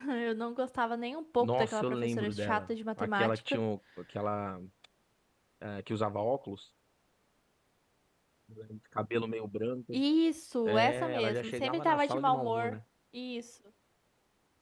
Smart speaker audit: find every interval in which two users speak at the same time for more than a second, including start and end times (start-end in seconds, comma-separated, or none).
1.4-3.6, 10.6-12.8